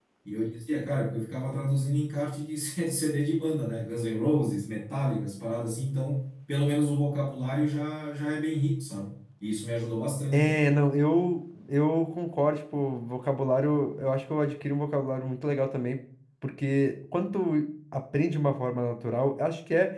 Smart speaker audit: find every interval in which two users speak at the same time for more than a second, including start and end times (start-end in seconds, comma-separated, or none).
none